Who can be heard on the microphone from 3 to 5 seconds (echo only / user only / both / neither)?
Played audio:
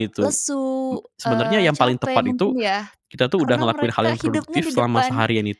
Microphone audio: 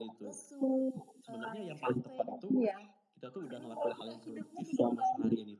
echo only